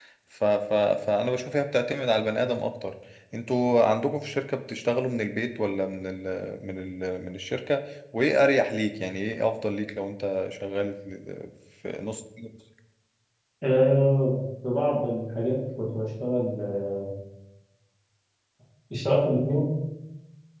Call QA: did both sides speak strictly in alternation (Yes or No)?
Yes